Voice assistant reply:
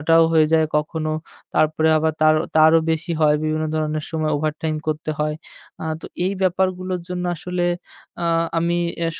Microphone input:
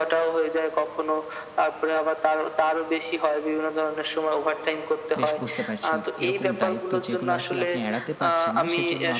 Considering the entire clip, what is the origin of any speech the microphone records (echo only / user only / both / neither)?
both